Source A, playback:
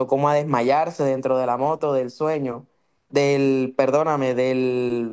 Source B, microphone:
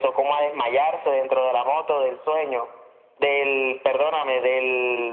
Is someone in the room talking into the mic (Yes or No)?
No